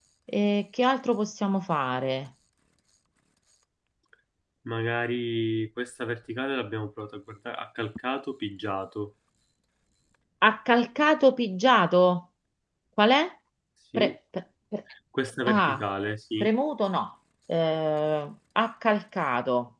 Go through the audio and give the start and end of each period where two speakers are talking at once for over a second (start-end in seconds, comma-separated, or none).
none